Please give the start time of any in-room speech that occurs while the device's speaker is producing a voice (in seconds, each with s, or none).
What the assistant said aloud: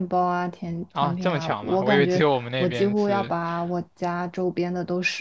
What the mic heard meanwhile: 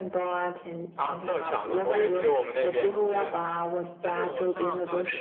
2.5 s